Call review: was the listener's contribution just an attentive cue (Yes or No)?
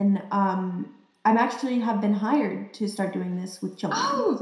No